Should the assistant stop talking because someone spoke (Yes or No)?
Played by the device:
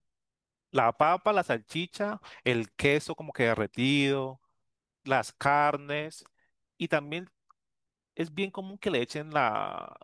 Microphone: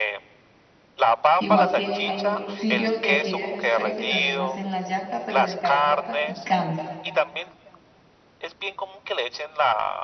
Yes